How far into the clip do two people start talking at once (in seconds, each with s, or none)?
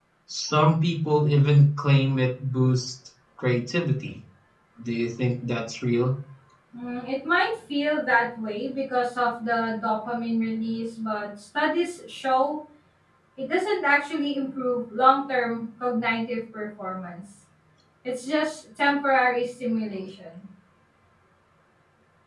none